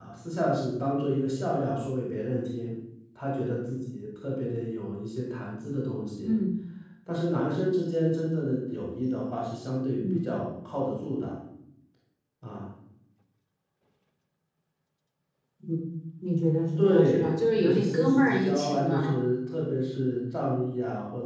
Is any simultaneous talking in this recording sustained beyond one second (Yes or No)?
Yes